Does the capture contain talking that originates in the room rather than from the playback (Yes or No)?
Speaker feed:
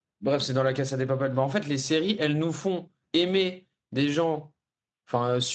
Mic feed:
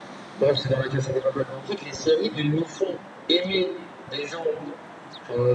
No